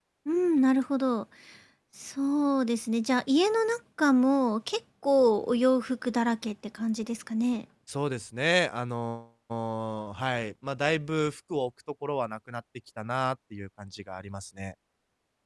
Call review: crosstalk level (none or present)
none